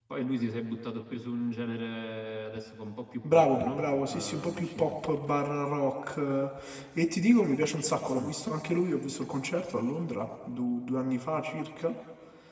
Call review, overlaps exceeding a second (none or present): present